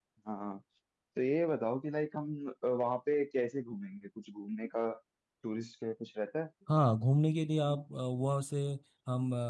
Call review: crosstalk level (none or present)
none